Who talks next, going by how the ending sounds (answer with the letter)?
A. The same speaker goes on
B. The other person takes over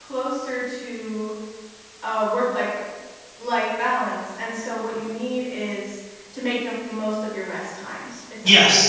B